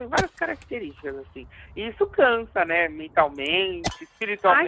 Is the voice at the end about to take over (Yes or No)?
Yes